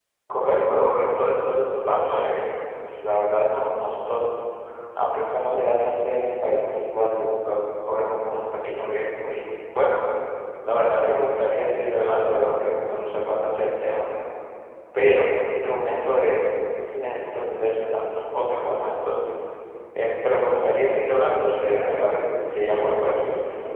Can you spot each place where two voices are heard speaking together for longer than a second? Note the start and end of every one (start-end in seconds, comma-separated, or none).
21.5-23.2